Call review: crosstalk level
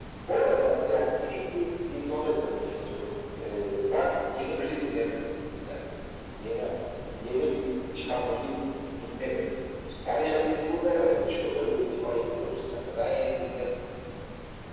present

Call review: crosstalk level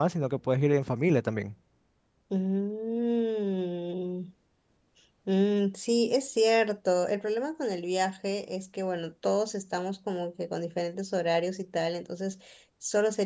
none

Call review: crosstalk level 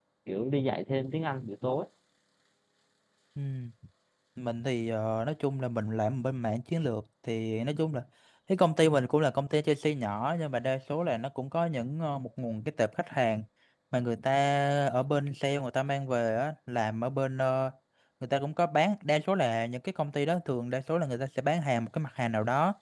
none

